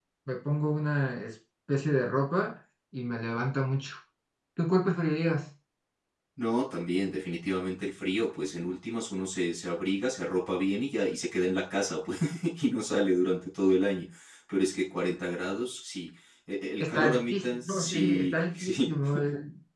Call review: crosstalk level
present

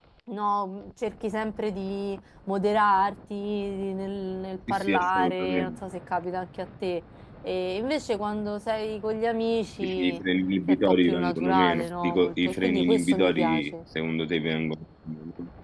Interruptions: present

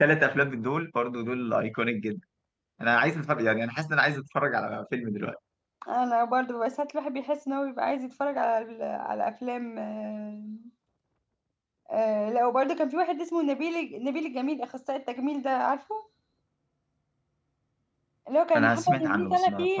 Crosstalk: present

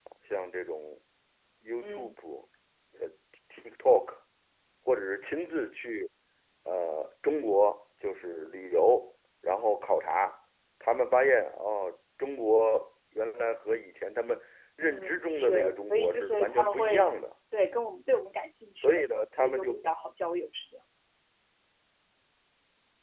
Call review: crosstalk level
present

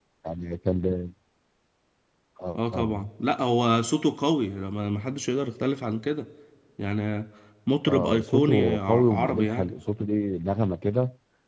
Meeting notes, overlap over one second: present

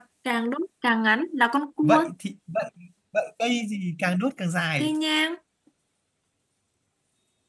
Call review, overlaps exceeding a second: none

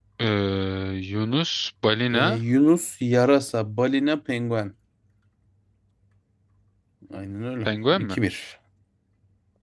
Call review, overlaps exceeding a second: none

